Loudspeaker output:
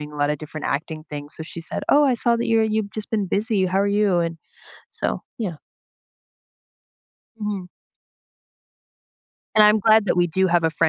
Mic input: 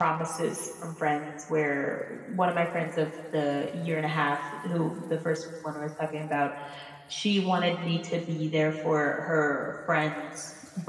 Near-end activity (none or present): present